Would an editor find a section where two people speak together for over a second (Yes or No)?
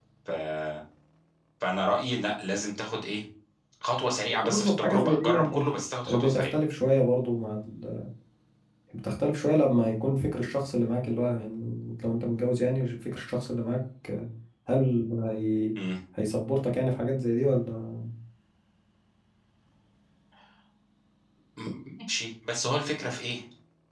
Yes